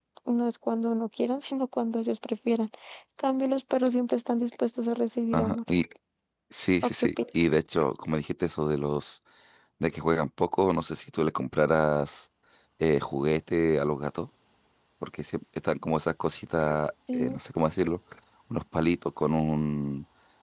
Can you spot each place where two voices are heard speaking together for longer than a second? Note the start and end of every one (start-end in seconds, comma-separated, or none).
none